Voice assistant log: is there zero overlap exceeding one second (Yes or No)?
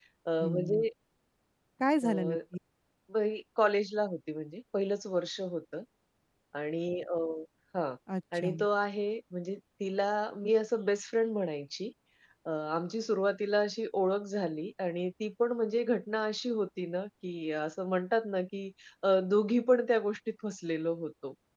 Yes